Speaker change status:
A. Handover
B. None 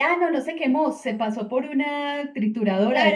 A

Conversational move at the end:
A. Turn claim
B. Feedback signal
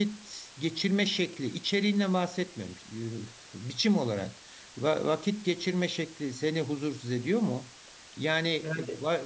B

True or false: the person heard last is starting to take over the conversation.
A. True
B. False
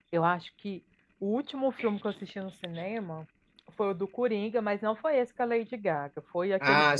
A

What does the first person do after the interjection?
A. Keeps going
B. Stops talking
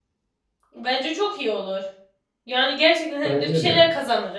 A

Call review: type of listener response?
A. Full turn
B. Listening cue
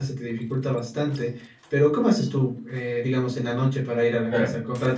B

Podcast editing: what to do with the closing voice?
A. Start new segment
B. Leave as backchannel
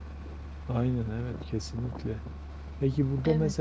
B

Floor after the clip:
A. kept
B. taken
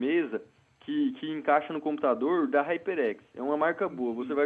A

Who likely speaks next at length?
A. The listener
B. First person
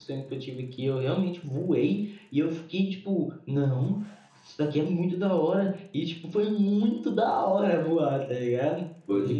A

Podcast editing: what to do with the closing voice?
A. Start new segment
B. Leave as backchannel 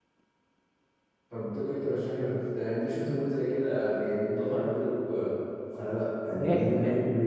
B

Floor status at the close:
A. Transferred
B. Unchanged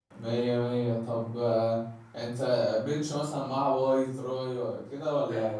A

